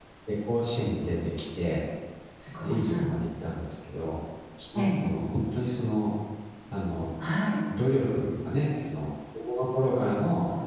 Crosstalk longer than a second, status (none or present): none